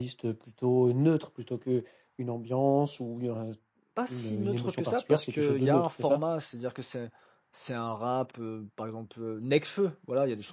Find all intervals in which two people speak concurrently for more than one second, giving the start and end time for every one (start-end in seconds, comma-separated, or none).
4.1-6.2